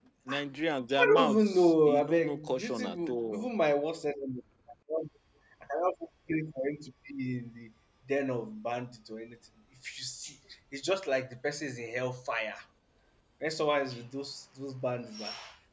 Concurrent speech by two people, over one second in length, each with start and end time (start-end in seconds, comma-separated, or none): 1.0-3.5